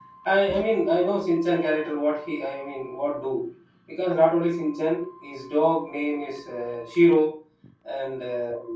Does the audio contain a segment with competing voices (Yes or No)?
No